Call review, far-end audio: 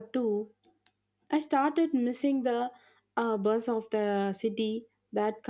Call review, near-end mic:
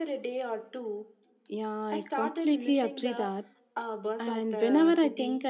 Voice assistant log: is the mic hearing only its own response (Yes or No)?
No